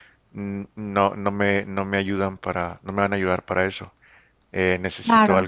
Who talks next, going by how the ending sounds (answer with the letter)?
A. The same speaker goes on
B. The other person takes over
A